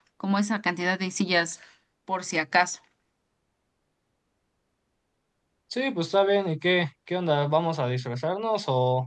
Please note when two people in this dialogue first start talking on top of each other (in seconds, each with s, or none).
none